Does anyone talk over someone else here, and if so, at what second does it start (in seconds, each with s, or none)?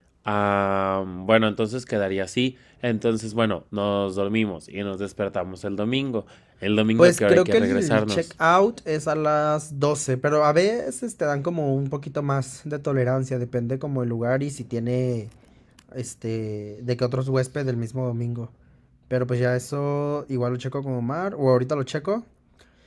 7.0 s